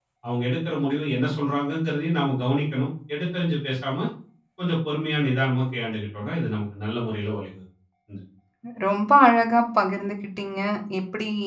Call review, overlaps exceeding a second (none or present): none